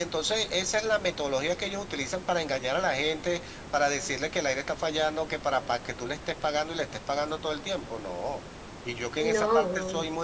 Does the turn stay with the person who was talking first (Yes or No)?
Yes